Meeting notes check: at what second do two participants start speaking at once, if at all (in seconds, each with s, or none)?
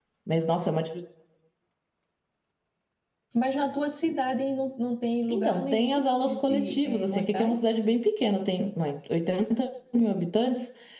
5.3 s